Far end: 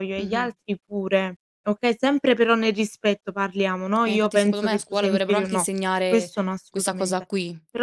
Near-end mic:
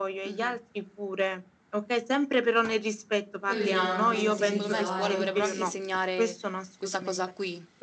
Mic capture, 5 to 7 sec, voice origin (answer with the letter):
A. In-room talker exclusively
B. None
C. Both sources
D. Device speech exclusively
C